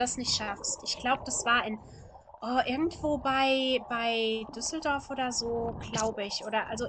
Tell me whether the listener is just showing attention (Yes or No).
Yes